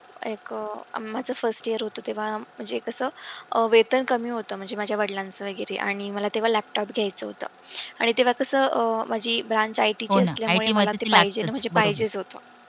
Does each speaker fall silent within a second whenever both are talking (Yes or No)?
No